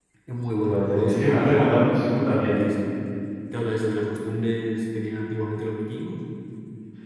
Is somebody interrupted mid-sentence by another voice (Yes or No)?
Yes